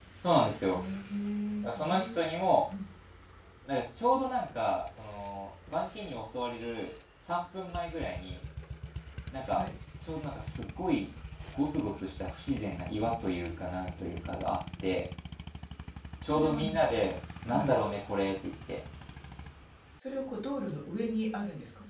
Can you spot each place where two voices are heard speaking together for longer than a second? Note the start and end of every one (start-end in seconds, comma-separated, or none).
none